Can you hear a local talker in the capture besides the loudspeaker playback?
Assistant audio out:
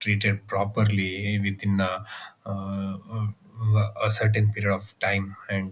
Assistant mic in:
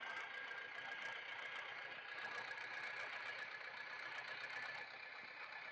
No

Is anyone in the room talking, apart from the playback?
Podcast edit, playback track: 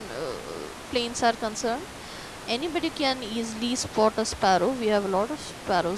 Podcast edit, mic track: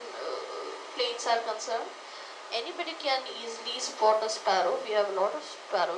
No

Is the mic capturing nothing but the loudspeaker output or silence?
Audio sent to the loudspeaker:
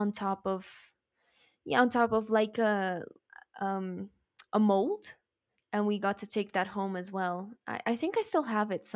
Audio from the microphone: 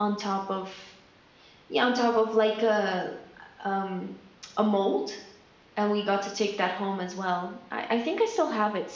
Yes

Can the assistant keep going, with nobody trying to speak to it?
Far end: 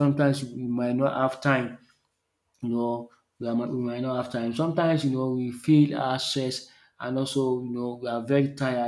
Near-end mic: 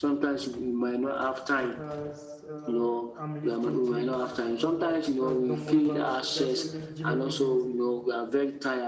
No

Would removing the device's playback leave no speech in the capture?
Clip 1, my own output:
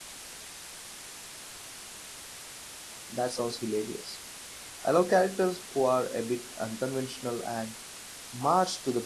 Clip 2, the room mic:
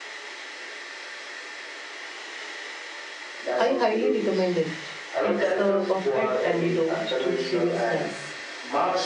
No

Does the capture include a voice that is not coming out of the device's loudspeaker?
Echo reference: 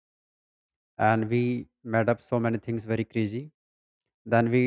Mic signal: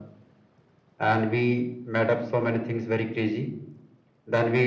No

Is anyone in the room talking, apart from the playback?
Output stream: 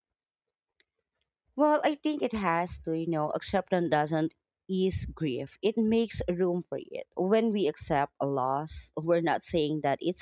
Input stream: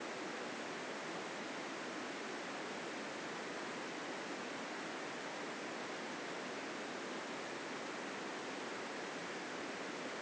No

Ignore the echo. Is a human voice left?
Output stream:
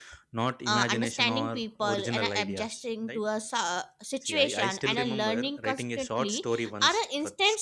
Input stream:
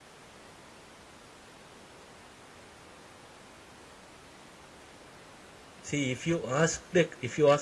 Yes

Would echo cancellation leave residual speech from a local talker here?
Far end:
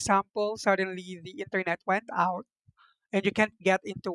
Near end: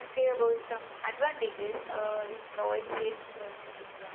Yes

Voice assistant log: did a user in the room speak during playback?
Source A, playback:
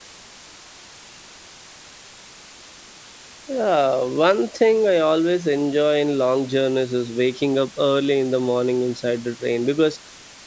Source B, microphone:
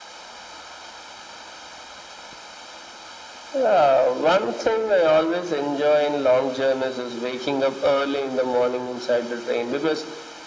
No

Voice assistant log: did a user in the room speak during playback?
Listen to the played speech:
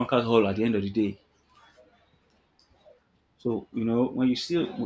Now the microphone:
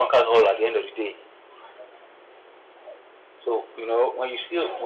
No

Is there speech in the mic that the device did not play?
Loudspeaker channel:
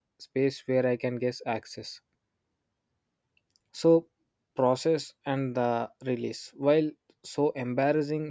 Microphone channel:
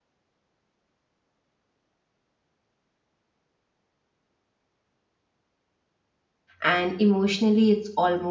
Yes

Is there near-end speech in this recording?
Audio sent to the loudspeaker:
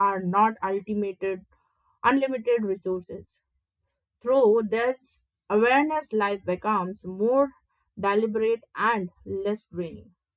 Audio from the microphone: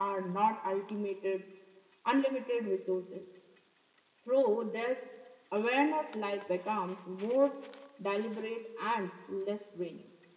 No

